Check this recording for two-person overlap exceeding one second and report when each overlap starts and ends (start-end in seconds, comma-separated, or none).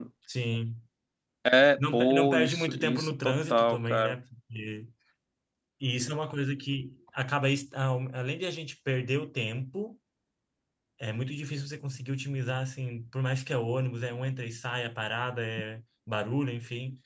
1.8-4.1